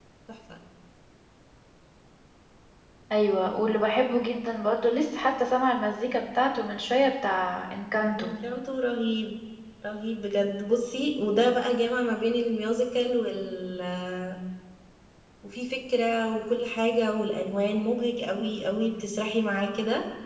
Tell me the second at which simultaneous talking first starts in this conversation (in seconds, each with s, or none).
none